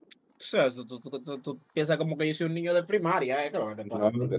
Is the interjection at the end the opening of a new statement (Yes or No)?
Yes